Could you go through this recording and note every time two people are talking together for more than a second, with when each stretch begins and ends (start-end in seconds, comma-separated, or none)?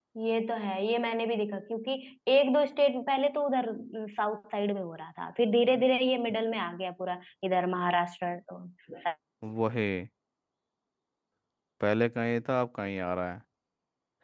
none